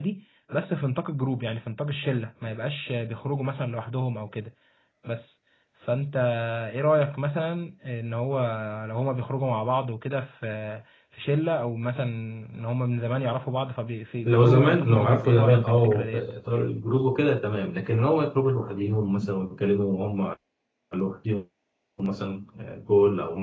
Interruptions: present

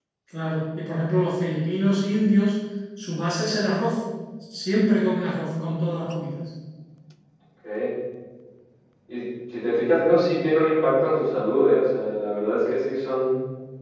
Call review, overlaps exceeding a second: none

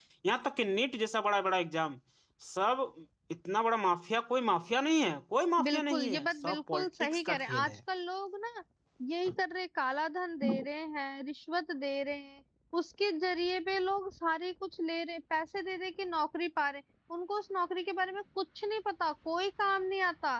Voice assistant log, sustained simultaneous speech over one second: present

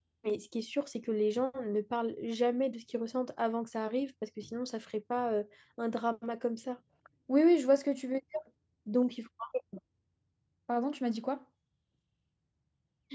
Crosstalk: none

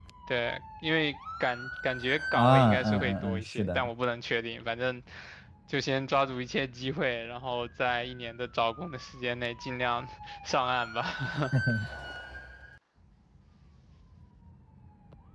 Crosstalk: present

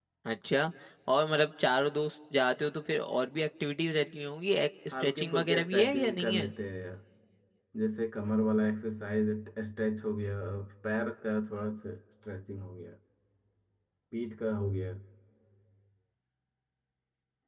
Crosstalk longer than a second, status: present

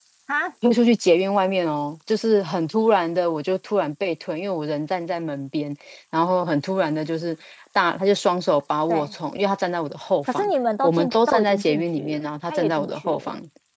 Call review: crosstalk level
present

